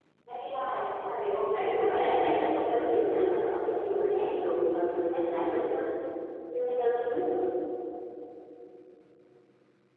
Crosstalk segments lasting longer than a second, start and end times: 1.6-3.5

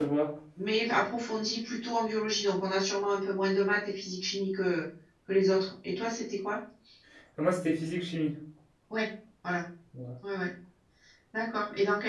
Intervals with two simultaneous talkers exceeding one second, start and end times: none

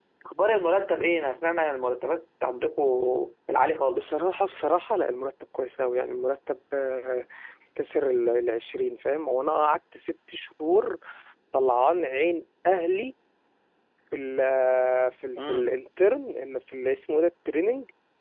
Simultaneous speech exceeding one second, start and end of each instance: none

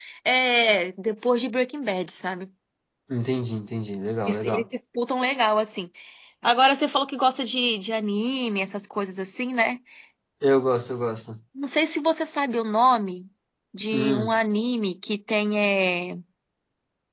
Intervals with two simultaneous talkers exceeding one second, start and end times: none

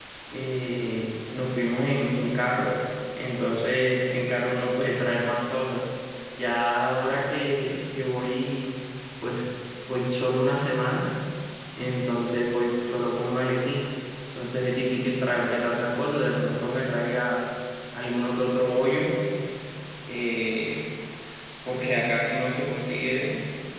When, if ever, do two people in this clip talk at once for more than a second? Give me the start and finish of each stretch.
none

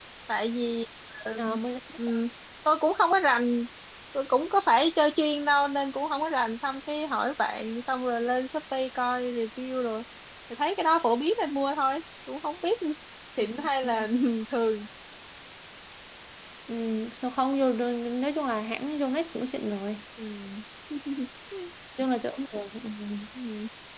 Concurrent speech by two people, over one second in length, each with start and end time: none

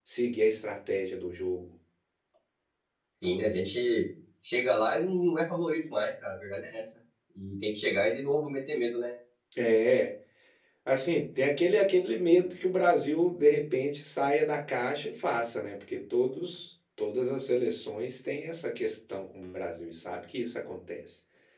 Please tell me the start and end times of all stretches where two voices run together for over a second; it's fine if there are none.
none

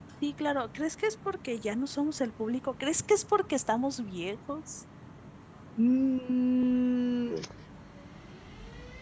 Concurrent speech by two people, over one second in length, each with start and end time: none

